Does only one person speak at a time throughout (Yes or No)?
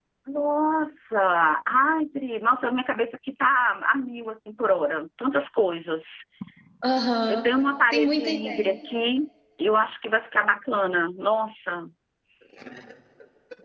No